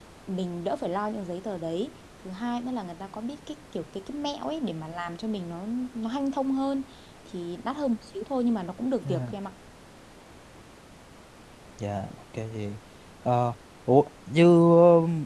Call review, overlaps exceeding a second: none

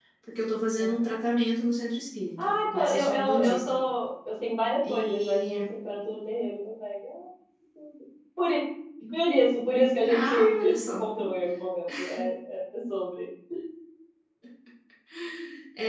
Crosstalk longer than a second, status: present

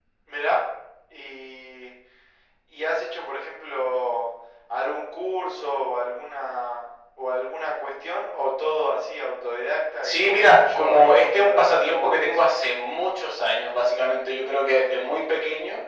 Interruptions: present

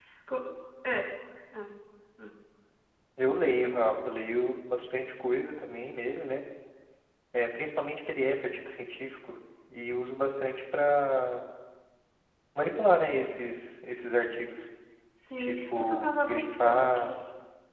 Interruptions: present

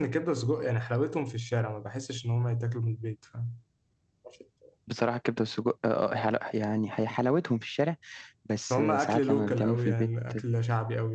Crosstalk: present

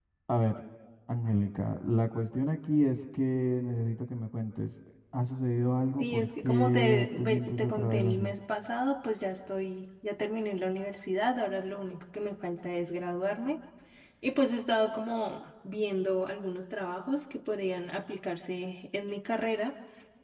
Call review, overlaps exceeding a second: present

